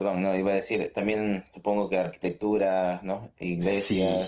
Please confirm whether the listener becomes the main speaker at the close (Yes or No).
Yes